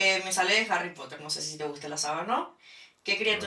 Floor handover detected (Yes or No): No